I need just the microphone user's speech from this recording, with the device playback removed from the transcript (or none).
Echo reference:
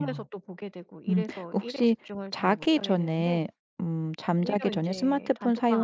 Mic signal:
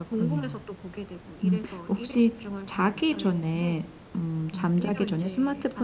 음.